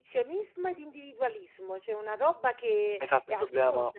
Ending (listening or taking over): taking over